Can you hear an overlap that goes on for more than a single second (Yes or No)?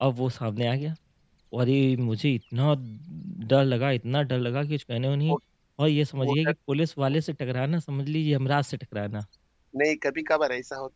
No